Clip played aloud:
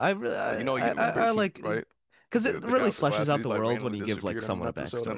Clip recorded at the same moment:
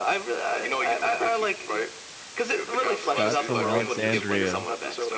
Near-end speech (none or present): present